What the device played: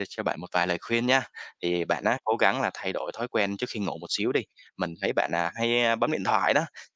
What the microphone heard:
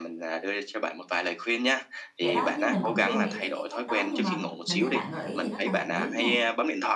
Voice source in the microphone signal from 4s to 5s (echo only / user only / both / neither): both